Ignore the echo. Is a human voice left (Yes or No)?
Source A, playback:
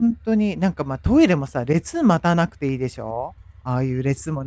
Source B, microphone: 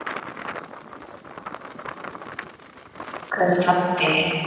Yes